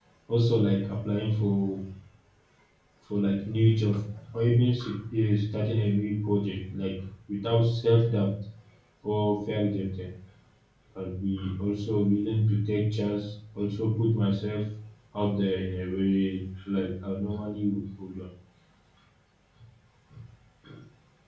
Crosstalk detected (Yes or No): No